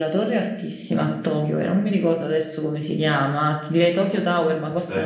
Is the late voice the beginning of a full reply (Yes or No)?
No